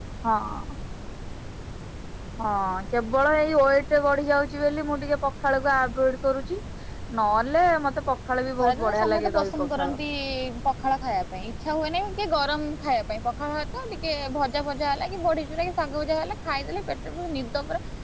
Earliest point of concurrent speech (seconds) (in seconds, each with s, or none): 8.6 s